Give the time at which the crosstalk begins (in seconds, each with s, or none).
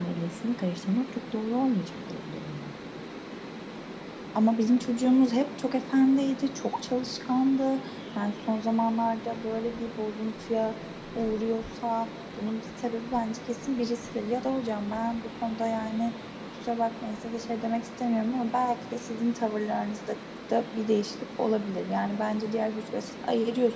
none